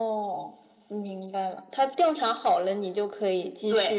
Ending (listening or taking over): taking over